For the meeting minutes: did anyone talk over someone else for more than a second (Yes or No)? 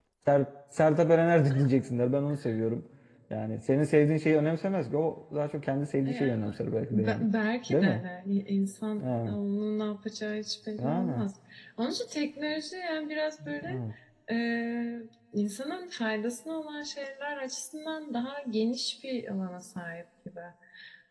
No